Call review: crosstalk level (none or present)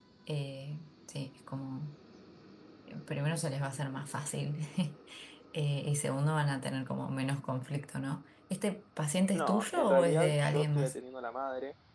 present